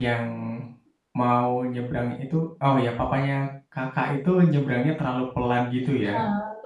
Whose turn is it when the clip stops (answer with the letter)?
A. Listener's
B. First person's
A